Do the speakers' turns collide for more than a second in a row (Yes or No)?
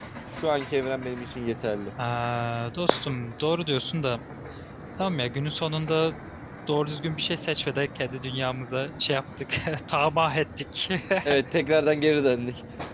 No